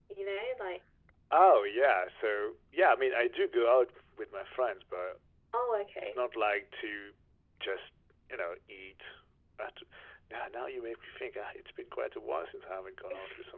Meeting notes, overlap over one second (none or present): none